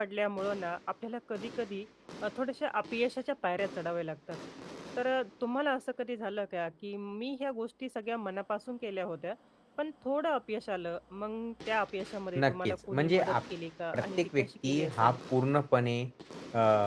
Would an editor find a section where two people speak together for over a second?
Yes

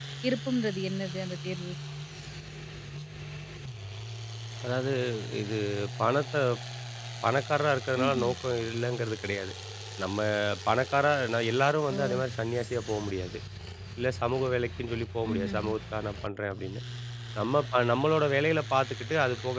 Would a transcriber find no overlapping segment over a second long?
Yes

